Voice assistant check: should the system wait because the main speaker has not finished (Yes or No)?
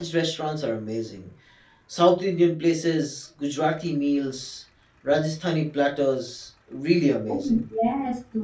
No